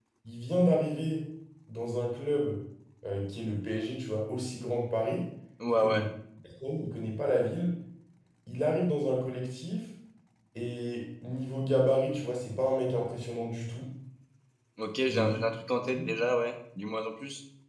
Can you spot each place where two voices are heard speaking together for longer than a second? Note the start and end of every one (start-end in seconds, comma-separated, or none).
none